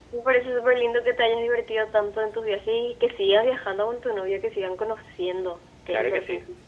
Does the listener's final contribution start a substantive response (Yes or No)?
Yes